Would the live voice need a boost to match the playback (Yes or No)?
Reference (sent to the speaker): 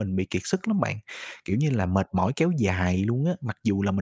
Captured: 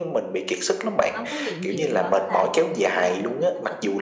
Yes